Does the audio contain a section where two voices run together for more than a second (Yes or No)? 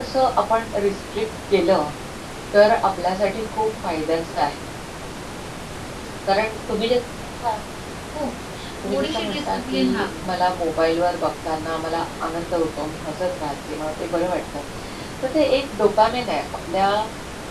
Yes